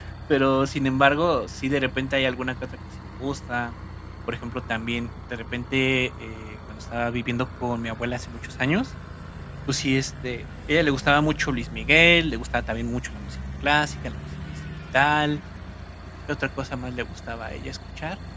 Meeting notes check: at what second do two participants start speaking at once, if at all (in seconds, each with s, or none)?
none